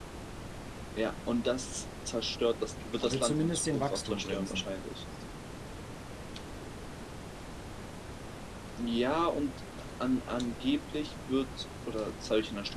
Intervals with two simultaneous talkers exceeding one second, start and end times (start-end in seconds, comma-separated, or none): 3.0-4.6